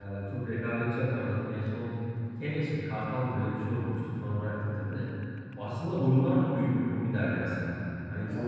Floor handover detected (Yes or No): No